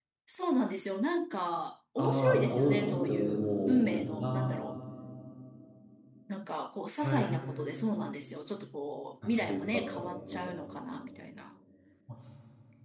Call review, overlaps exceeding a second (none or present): present